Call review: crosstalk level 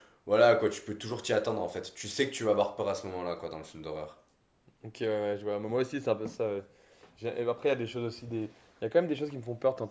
none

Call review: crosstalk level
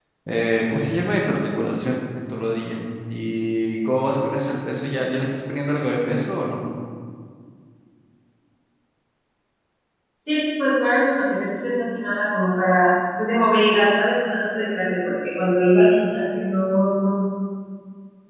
none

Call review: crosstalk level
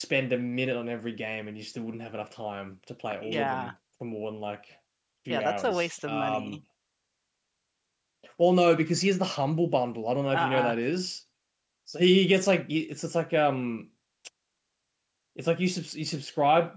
present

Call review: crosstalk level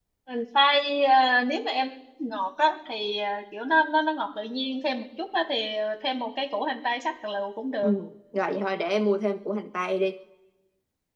none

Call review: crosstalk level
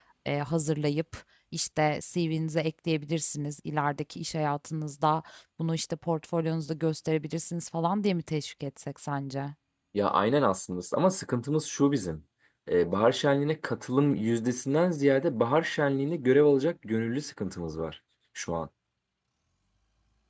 none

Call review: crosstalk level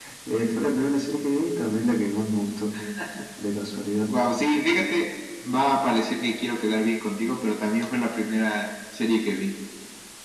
none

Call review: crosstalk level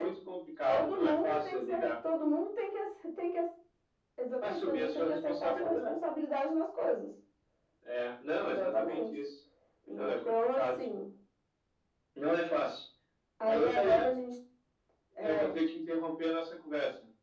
present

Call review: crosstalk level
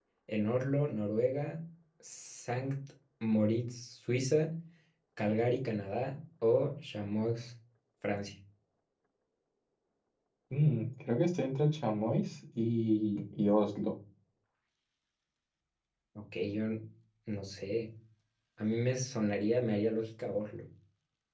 none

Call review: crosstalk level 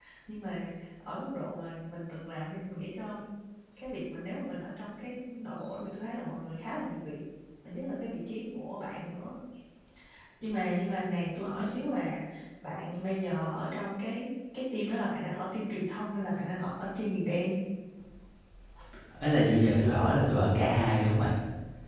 none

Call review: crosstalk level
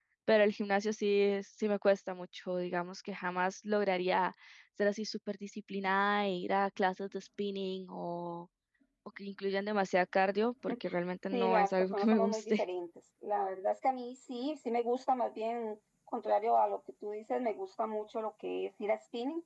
present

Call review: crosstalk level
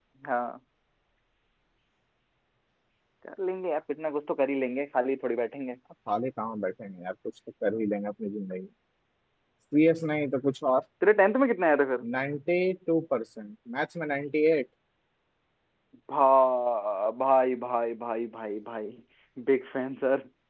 none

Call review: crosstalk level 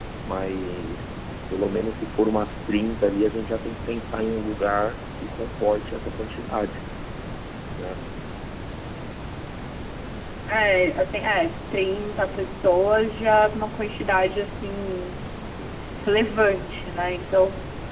none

